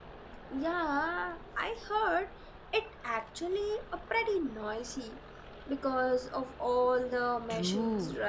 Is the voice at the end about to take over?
Yes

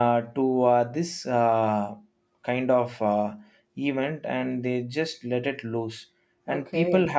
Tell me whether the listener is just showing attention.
Yes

